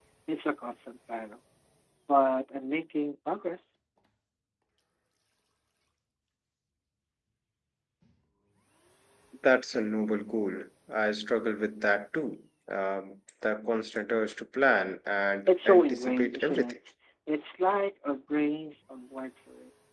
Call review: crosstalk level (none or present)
present